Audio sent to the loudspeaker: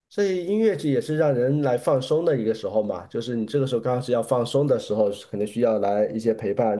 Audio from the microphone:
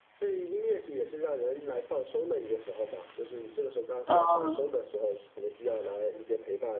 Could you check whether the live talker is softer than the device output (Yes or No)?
No